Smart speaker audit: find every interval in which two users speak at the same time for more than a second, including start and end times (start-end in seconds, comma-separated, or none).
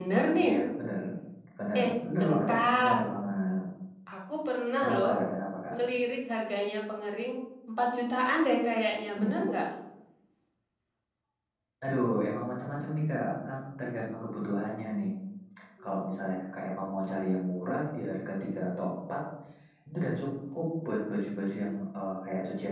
1.8-3.0